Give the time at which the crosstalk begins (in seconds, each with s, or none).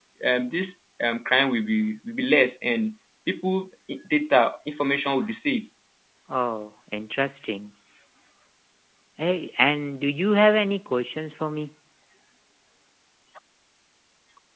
none